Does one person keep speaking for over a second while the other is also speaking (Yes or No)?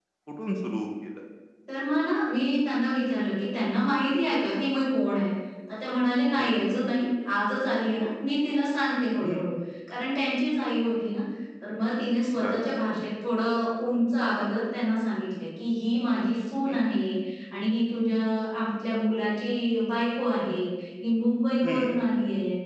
No